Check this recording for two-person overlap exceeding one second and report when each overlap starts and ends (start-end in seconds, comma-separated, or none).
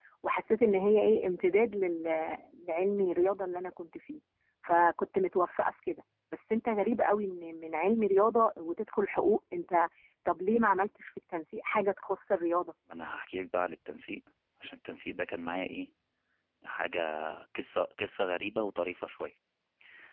none